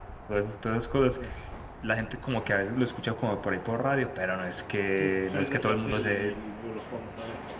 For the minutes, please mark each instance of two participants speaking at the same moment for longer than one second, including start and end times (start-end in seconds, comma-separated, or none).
5.0-6.3